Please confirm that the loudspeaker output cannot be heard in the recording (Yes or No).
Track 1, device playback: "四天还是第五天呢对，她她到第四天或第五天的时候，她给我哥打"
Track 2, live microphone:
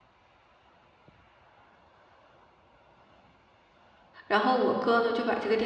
Yes